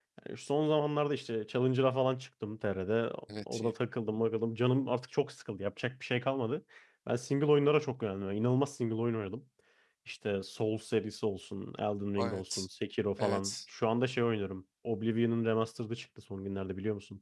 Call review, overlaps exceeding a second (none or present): none